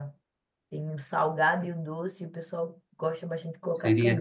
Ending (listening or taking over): taking over